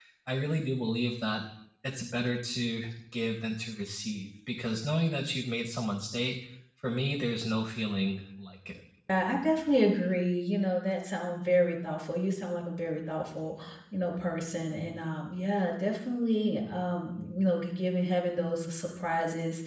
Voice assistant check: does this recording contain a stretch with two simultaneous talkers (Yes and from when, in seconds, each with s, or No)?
No